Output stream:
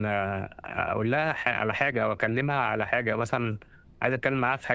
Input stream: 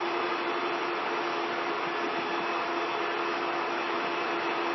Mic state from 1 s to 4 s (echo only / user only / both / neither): neither